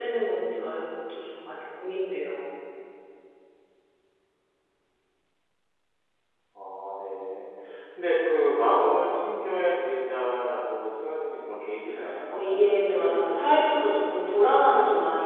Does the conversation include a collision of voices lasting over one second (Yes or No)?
Yes